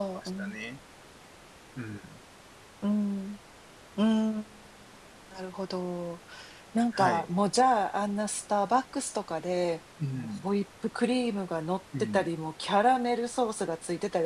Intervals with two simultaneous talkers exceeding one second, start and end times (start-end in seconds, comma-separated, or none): none